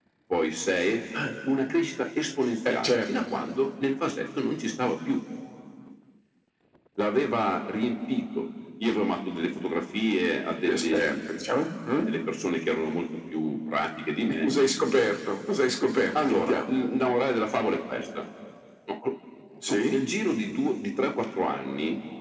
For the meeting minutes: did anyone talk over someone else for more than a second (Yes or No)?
No